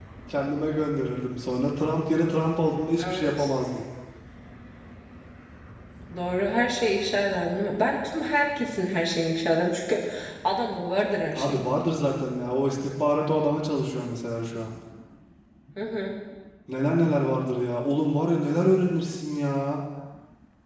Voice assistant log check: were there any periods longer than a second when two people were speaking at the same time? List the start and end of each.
none

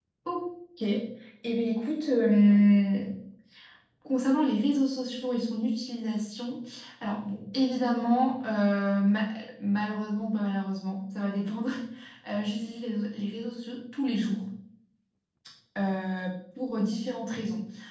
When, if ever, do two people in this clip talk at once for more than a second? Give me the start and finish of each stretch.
none

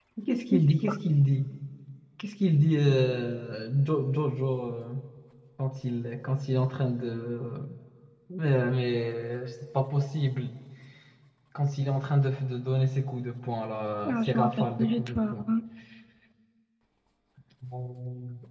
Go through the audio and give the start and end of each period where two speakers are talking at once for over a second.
14.1-15.5

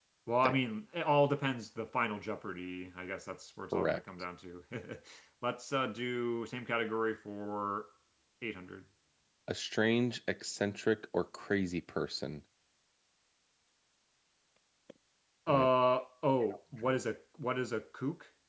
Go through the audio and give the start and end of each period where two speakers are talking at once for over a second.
none

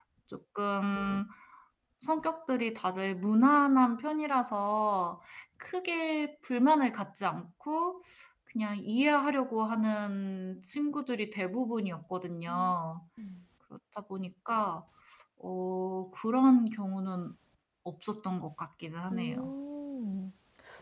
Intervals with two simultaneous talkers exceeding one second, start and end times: none

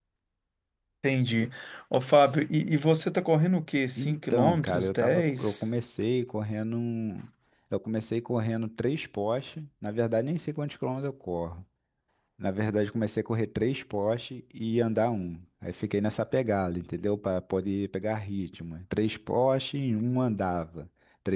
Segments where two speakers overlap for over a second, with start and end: 4.0-5.6

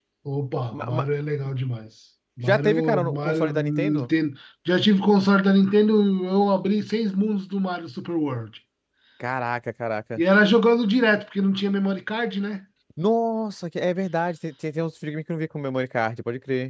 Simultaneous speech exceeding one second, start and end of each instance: 2.4-4.1

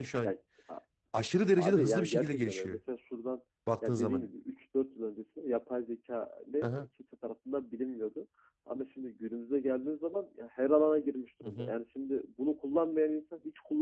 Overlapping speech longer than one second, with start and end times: 1.6-2.8

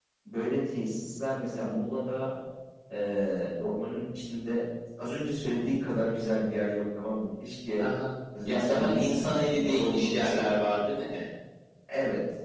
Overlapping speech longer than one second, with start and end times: 8.5-10.5

